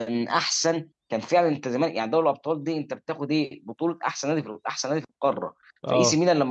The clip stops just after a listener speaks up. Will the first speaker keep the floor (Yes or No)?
Yes